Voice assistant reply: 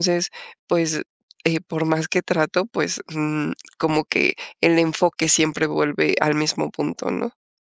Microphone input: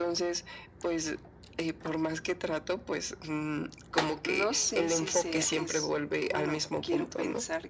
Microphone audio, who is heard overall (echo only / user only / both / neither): both